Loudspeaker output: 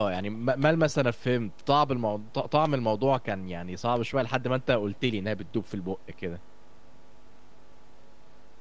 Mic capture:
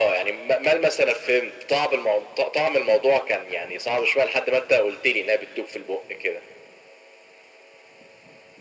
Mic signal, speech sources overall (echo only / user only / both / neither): echo only